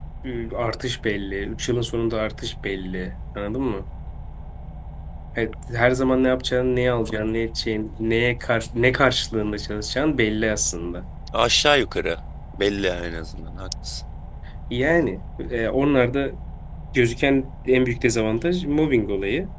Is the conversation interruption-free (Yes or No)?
Yes